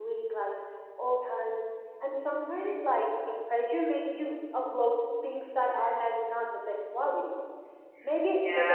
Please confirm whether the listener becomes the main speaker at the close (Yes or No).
No